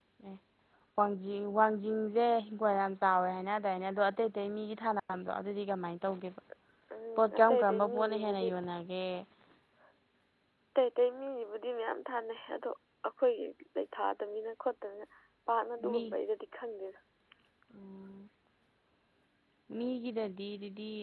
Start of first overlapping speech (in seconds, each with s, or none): 7.2 s